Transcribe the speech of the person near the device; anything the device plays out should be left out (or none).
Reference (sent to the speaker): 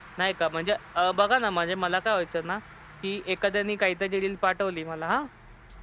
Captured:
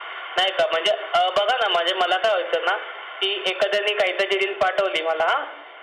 none